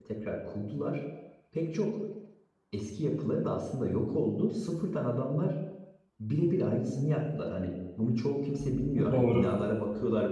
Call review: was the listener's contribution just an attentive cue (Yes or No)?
Yes